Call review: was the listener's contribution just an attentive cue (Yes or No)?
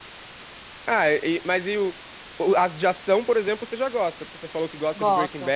Yes